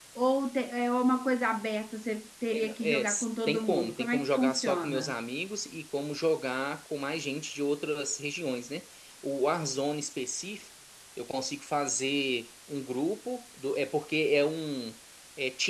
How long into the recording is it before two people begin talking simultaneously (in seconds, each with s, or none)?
2.5 s